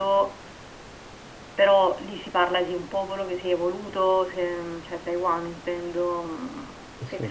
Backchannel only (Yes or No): Yes